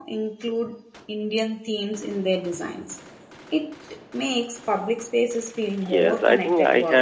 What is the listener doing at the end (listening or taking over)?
taking over